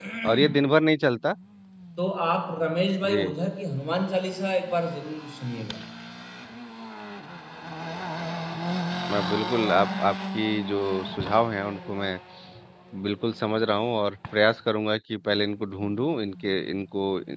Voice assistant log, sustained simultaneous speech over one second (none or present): none